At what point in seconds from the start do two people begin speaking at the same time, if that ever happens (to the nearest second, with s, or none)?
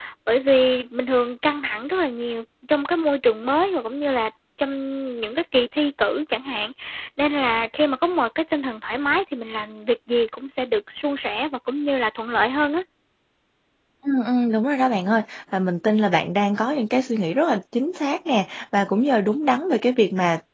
none